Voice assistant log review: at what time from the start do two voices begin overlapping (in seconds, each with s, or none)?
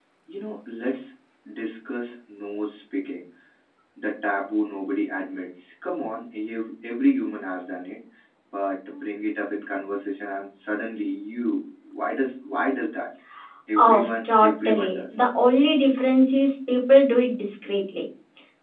13.8 s